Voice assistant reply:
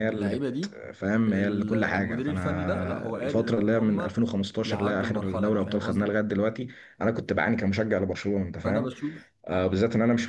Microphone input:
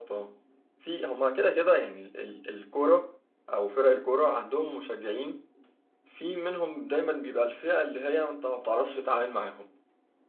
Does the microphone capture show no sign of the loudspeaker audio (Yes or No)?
Yes